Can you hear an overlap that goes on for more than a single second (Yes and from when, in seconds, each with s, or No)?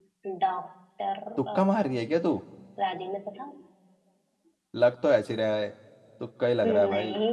No